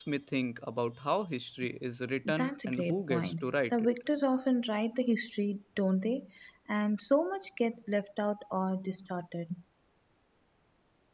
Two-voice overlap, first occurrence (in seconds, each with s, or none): 2.2 s